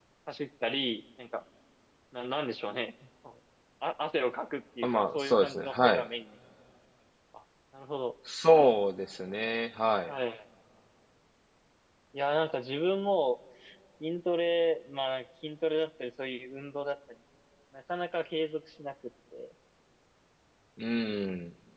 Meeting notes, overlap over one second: present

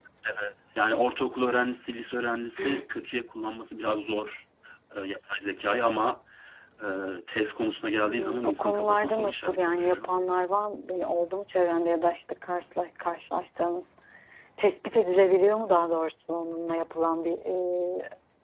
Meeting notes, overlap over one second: present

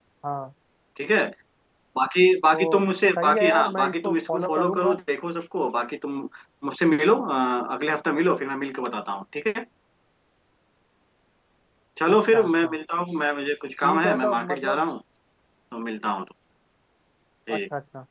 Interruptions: present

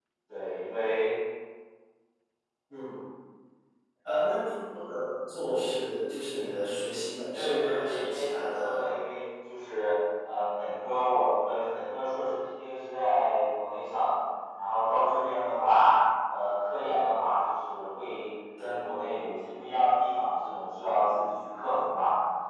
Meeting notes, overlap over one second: present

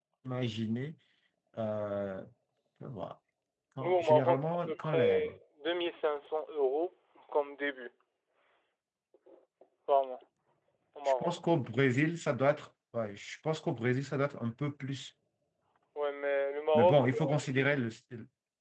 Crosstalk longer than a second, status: present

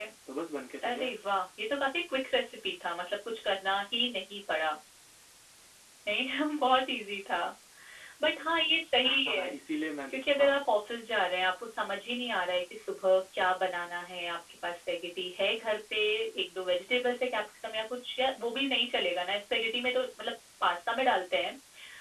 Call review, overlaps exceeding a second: none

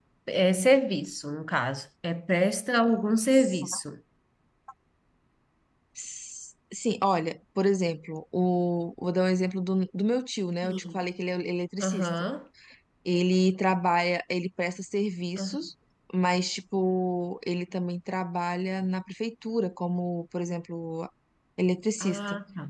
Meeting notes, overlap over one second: none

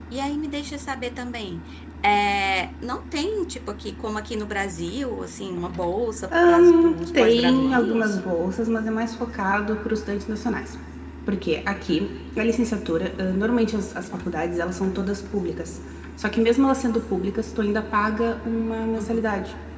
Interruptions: present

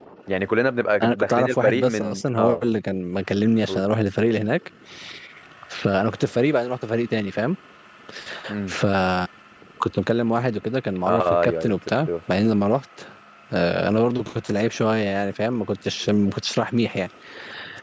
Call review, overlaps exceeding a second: present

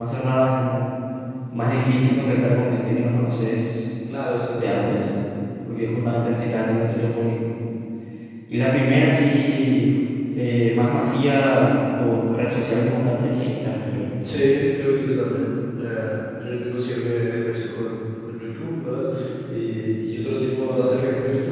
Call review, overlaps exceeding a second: none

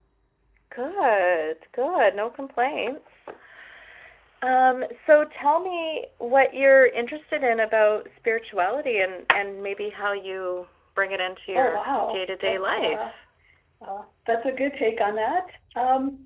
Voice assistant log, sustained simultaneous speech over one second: present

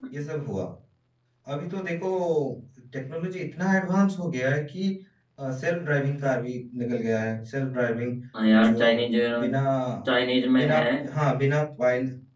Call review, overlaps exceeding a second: none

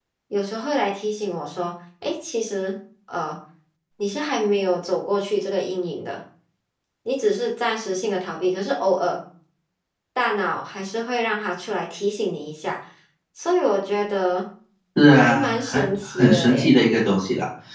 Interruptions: present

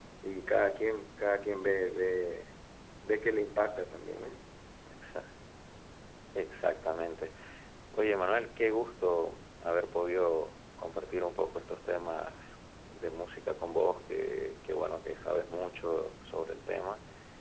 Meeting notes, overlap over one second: none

